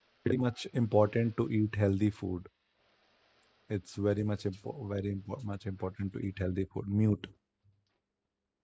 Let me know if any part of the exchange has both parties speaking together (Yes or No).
No